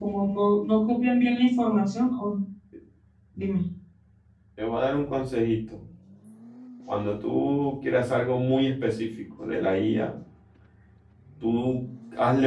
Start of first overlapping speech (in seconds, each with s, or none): none